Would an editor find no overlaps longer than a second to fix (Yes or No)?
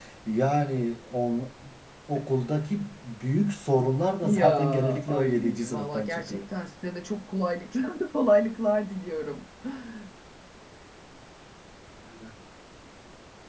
No